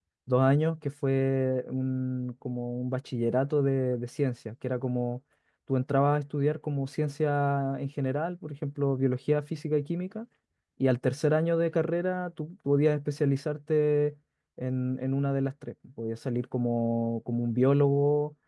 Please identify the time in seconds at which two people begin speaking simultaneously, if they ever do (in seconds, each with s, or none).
none